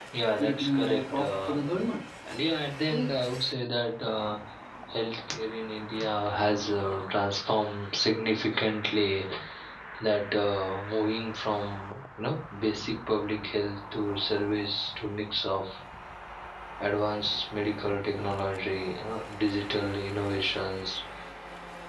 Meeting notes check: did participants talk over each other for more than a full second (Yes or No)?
Yes